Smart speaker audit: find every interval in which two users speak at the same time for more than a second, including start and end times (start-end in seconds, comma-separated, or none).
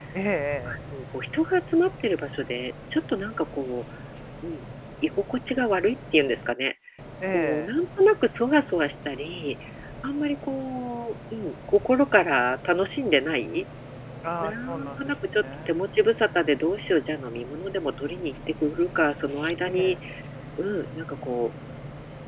14.4-15.8